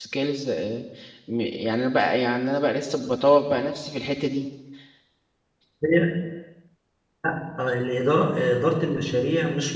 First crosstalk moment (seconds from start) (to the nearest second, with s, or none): none